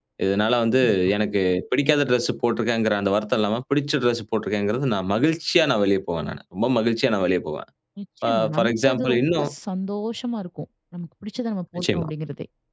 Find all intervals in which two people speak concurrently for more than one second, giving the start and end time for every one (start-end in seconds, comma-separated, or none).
8.3-9.5